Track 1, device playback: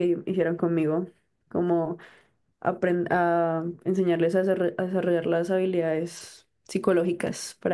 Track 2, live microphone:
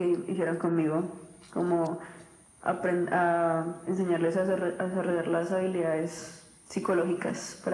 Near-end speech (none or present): none